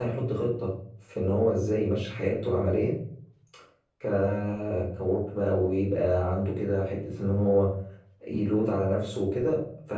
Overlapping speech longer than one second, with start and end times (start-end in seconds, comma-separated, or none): none